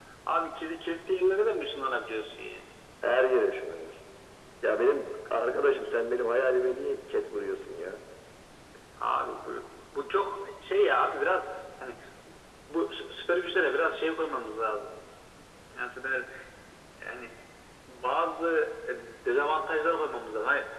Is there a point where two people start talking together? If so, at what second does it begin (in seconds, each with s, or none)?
none